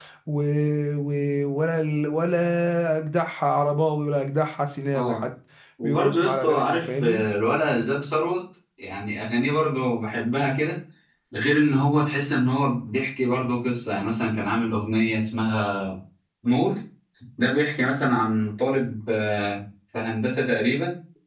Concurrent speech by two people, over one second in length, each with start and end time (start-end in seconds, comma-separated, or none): 5.8-7.2